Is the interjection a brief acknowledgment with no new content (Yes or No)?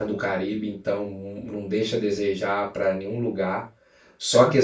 Yes